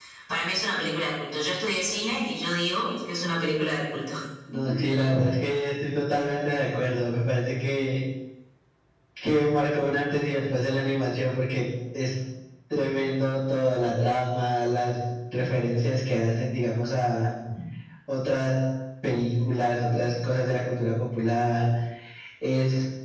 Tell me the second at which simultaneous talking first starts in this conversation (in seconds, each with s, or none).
none